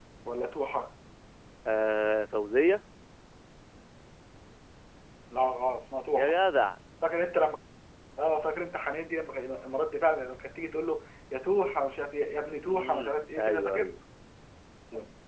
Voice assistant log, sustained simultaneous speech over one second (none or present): present